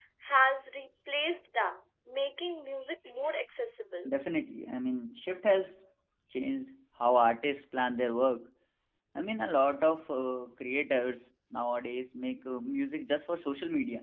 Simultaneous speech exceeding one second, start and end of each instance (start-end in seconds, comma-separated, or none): none